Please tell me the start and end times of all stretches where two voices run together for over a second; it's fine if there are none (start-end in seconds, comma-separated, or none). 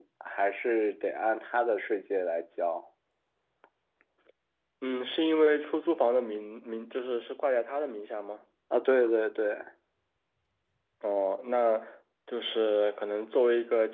none